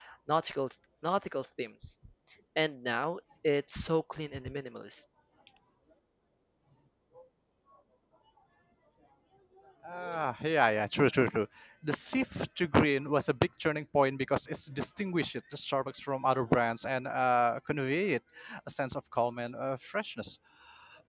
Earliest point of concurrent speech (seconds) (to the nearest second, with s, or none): none